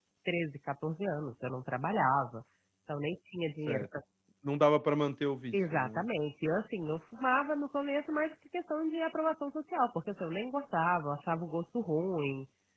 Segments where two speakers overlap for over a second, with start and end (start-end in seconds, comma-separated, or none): none